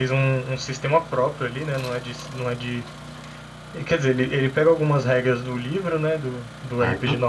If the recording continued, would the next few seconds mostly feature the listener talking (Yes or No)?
No